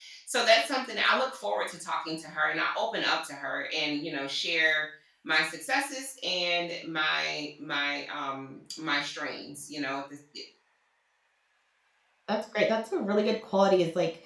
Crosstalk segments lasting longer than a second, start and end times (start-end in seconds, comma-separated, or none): none